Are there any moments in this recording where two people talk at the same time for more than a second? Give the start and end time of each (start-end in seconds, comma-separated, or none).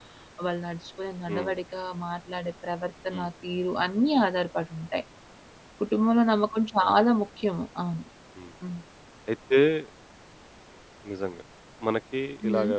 none